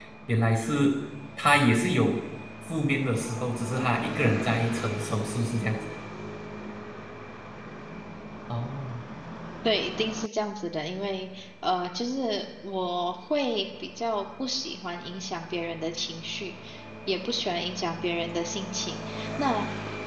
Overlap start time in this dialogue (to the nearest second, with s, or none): none